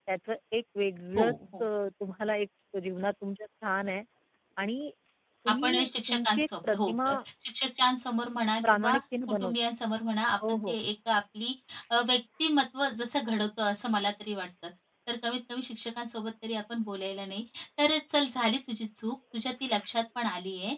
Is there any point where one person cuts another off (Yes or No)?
Yes